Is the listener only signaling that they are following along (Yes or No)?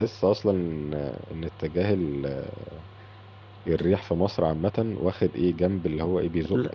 No